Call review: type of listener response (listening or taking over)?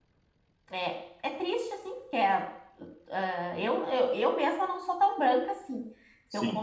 listening